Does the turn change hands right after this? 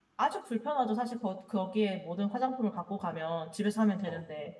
No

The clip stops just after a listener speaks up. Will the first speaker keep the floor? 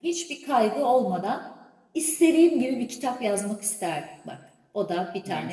No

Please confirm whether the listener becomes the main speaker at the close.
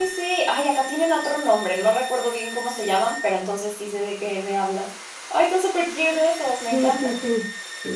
Yes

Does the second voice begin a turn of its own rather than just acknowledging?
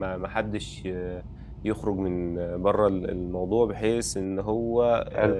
No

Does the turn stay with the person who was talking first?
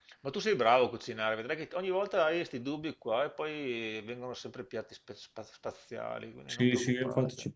No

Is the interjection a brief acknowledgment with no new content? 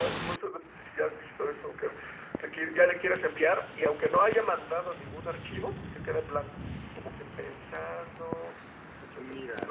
No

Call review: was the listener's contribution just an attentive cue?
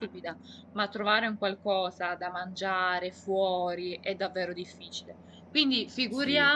Yes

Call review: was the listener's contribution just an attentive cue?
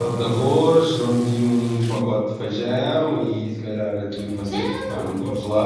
Yes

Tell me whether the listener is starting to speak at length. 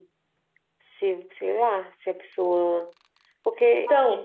Yes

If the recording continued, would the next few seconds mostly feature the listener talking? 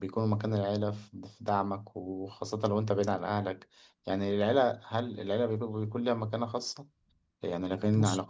No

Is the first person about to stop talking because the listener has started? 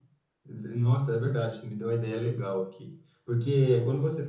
No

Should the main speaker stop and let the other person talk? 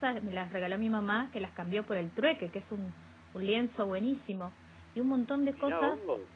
Yes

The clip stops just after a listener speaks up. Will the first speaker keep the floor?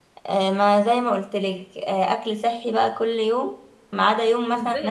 No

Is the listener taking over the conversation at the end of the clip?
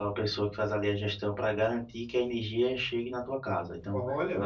No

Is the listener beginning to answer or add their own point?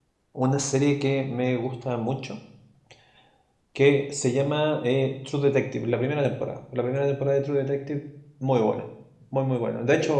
No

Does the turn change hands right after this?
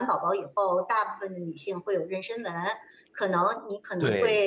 No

